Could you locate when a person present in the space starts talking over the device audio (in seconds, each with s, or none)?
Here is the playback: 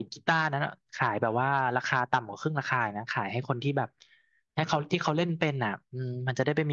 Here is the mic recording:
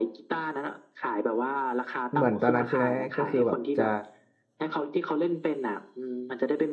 2.1 s